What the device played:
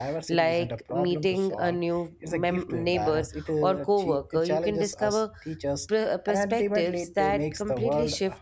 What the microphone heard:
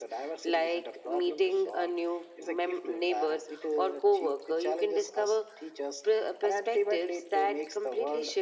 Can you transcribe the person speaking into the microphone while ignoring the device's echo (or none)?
none